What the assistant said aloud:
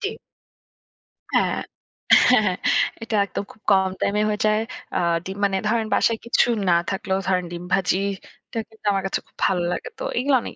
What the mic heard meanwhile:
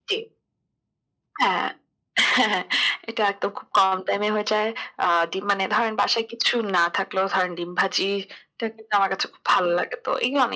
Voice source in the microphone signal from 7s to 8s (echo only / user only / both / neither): echo only